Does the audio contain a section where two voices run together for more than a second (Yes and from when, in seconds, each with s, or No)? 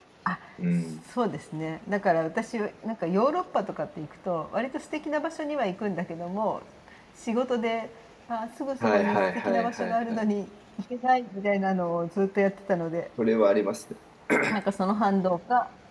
Yes, from 8.8 s